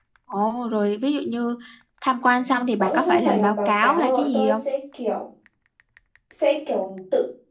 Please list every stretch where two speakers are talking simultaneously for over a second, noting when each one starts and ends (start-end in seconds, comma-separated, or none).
2.8-4.6